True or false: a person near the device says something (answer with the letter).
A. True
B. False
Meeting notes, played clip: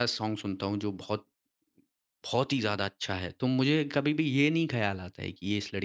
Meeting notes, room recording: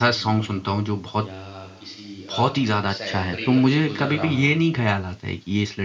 A